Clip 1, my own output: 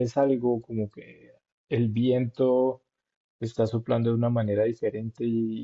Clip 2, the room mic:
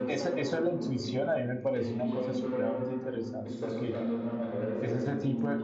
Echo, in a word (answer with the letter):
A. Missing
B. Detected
B